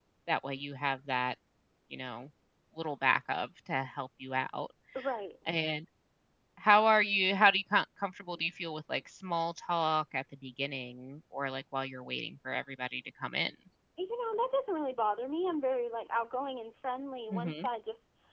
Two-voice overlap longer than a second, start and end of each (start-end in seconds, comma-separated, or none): none